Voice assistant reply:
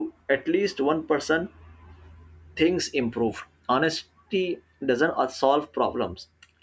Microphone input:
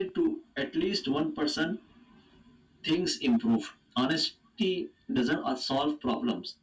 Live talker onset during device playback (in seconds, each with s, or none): none